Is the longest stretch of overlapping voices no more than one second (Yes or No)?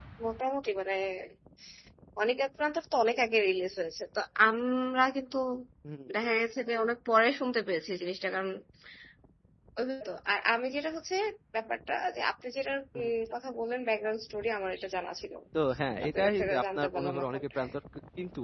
No